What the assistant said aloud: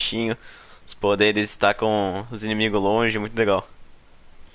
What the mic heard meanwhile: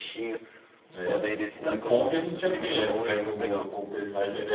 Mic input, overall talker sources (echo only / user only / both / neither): both